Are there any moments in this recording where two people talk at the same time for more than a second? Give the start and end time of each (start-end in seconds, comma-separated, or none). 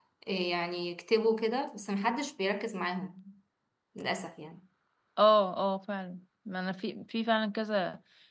none